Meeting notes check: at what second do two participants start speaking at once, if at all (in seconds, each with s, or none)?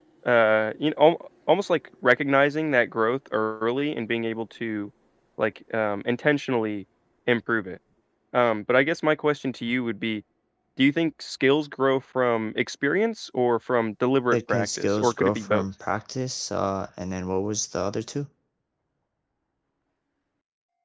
14.3 s